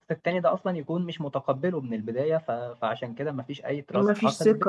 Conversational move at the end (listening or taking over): taking over